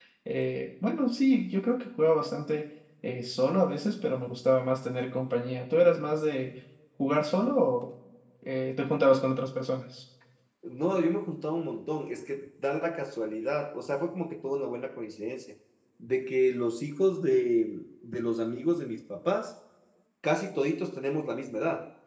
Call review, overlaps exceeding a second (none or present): none